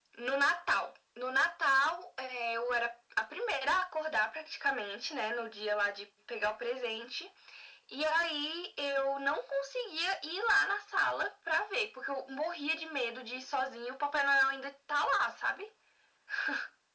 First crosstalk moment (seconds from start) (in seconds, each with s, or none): none